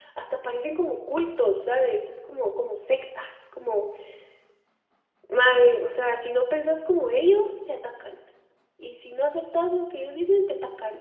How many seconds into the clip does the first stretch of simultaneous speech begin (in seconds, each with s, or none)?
none